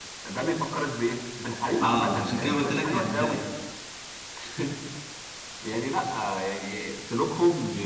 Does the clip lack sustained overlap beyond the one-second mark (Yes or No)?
No